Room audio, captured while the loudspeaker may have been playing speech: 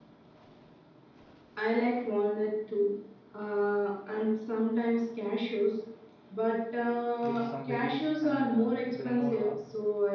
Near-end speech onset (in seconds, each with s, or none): 7.2 s